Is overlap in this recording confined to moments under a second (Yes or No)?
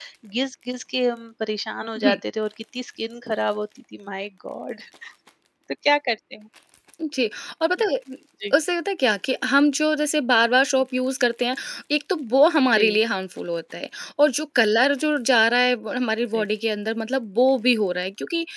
Yes